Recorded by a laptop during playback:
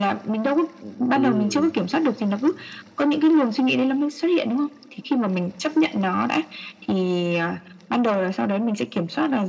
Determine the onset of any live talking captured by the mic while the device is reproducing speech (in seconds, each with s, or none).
1.1 s